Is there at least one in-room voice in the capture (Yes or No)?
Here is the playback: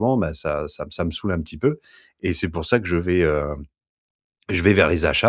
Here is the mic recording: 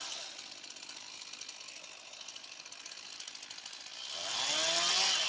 No